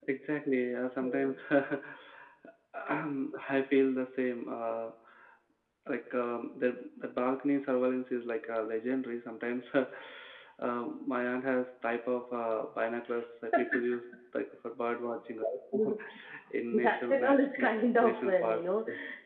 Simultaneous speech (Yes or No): Yes